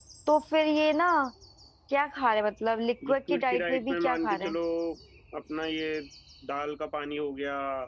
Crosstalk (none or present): present